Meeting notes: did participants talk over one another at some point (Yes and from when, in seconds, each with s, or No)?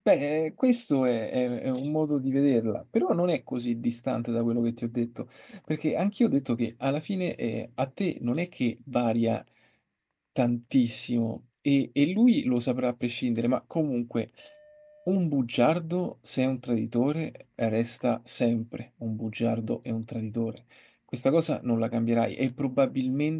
No